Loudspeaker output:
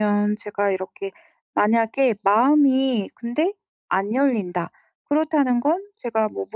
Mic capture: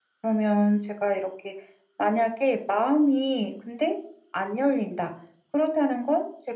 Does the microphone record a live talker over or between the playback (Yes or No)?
No